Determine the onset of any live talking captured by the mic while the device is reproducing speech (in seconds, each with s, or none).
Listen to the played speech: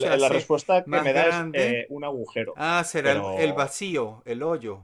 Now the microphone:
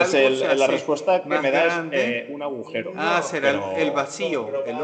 2.6 s